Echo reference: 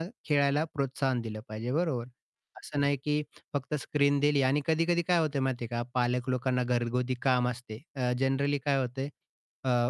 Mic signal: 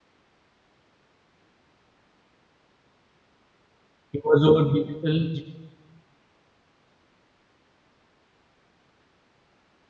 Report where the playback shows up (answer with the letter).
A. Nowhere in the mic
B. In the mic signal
A